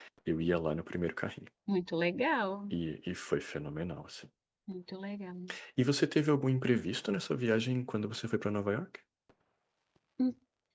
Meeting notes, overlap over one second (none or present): none